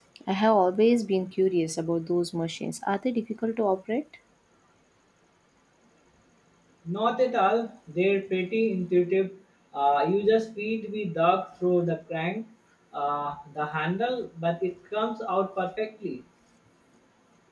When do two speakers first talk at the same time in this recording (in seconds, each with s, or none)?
none